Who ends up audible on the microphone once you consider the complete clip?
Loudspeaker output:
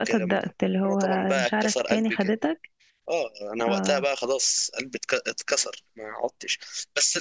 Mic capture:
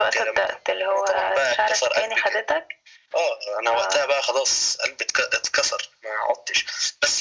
echo only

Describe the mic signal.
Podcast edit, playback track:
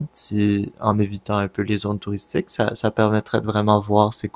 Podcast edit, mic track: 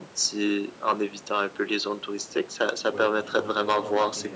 both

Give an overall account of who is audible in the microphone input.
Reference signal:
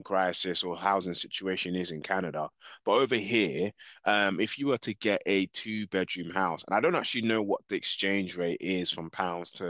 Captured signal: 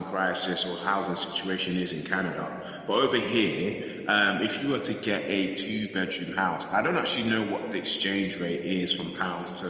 echo only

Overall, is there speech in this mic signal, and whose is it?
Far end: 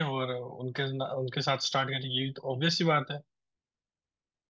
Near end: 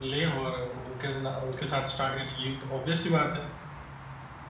echo only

